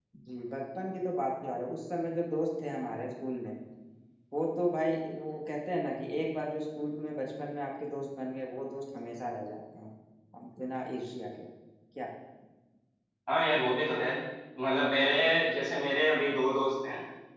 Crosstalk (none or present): none